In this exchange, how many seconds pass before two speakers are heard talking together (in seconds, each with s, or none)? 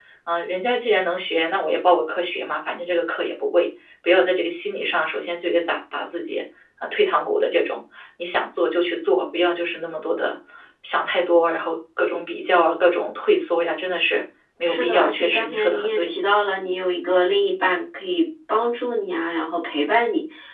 14.7 s